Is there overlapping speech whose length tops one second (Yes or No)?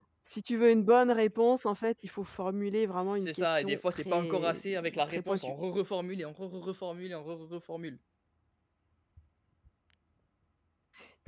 Yes